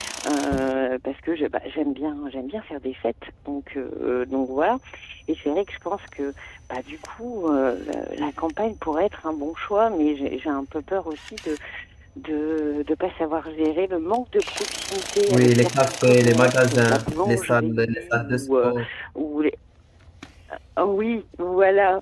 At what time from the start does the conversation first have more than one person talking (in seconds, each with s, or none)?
15.3 s